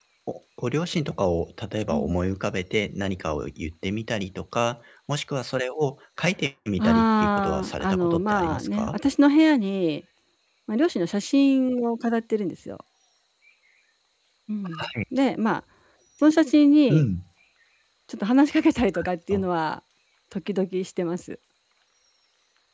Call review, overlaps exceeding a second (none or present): present